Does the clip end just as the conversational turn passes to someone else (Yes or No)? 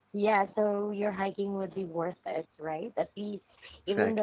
No